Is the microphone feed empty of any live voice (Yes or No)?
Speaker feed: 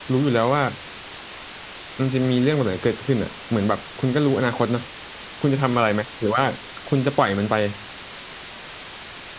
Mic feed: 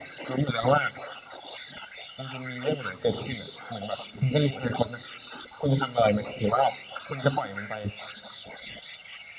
Yes